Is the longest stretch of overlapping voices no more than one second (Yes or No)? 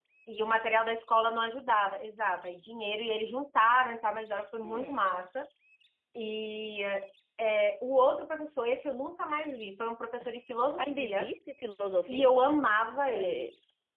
Yes